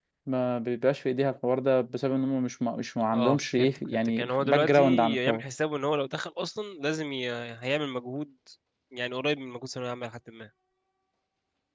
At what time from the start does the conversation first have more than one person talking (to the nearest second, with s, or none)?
3 s